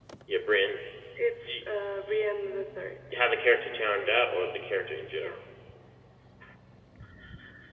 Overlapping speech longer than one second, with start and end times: none

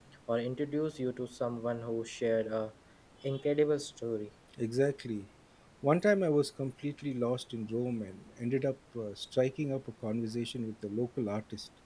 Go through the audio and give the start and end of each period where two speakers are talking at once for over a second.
none

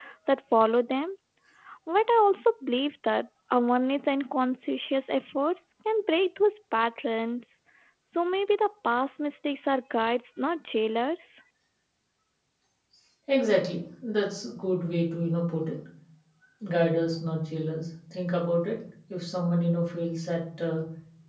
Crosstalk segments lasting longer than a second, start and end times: none

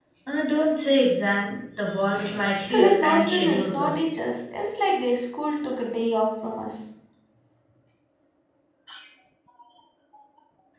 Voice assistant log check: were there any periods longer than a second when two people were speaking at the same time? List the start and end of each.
2.7-4.0

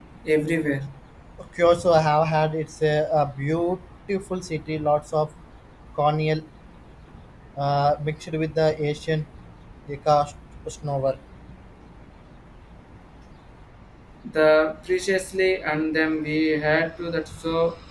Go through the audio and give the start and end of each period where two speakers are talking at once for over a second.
none

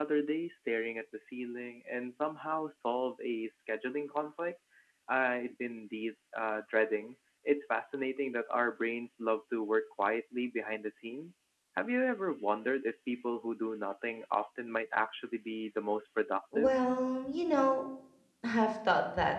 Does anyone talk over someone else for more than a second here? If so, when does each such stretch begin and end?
none

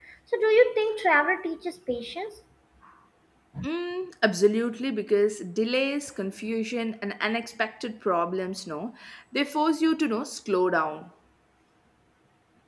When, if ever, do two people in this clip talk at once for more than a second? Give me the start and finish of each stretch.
none

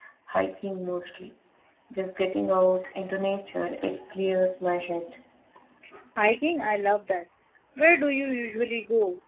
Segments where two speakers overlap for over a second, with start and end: none

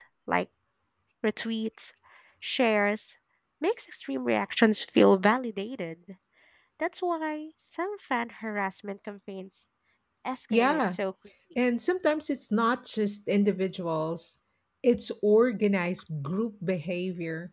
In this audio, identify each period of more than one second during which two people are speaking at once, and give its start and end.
none

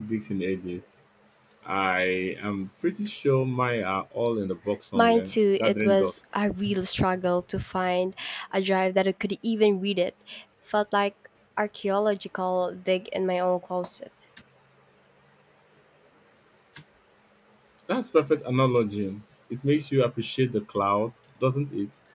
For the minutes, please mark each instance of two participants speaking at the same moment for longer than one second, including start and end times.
5.0-6.2

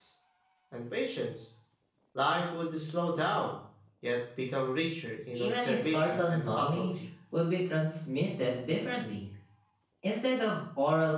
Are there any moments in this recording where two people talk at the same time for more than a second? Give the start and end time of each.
5.3-7.0

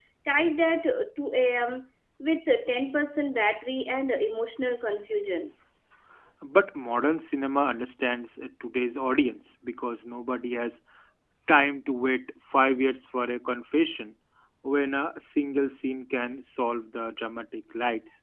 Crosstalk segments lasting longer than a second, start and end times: none

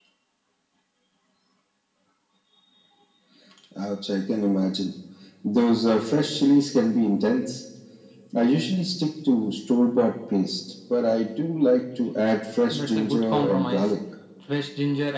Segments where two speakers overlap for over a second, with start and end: 12.7-13.9

